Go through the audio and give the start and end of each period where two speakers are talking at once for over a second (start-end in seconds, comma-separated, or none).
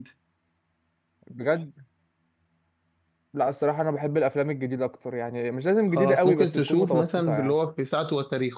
6.0-7.5